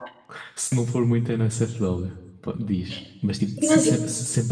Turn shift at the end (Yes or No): No